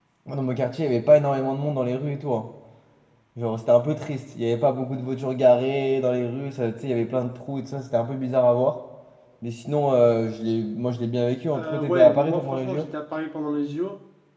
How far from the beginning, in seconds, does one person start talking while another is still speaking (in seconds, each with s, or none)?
11.5 s